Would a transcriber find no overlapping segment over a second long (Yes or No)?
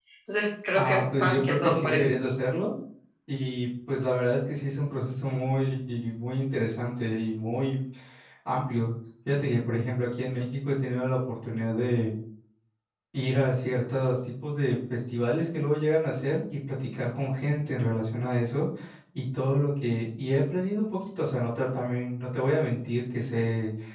No